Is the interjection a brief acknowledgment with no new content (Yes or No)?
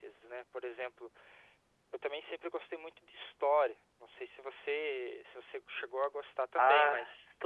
No